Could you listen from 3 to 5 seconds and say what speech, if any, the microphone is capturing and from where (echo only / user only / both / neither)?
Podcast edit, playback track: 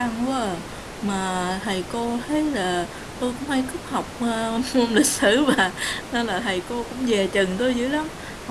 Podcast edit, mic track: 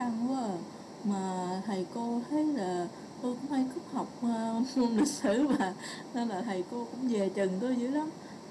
echo only